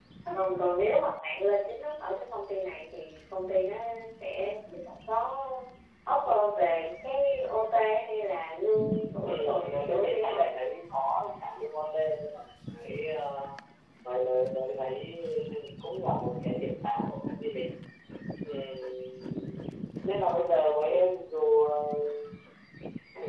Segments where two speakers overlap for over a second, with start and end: 9.2-10.4

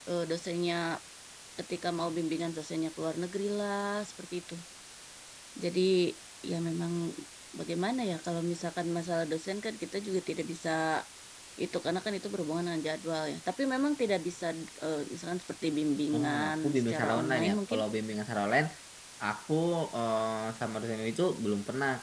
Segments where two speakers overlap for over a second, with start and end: 16.1-17.8

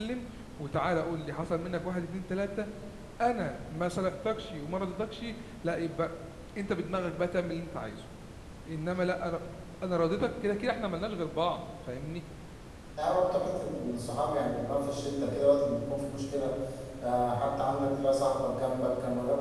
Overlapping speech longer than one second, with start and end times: none

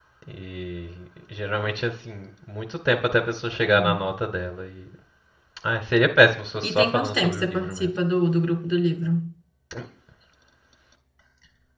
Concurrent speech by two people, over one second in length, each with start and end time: 6.7-7.9

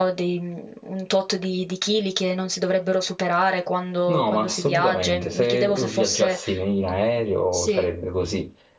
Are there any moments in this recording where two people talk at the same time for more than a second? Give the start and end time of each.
4.1-6.4

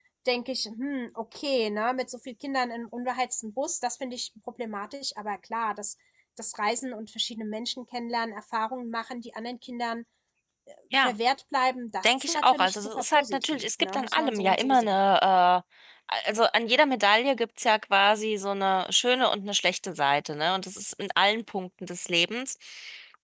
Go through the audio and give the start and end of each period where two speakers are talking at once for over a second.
12.0-14.9

